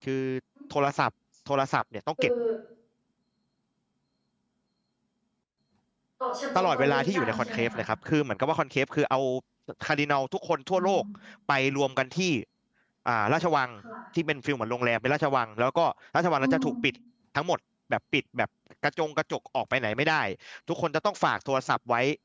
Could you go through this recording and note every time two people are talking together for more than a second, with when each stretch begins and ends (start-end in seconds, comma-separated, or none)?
6.5-7.8